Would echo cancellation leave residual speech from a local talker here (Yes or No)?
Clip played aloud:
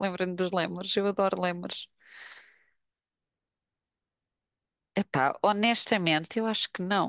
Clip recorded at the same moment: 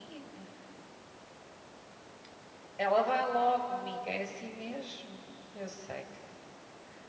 Yes